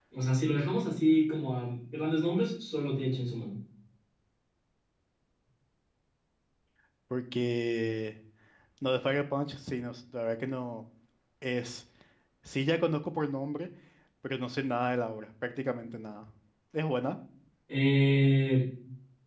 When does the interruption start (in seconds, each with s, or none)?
none